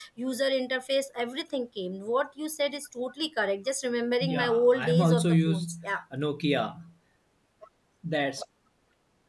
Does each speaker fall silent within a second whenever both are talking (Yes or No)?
No